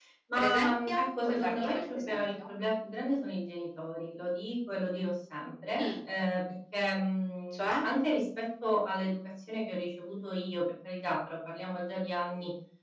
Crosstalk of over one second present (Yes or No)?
Yes